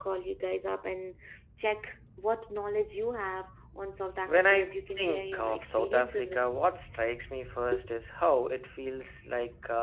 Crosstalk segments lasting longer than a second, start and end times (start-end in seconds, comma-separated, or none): 4.2-6.6